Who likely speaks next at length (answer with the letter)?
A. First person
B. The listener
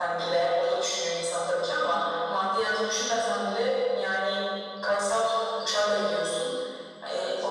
A